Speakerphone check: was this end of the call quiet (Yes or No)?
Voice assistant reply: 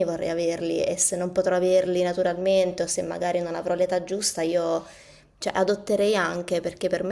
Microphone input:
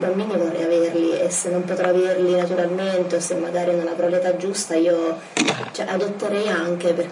Yes